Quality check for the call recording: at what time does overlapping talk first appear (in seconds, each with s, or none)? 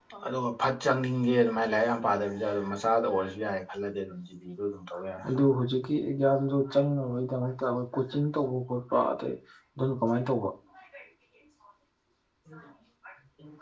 none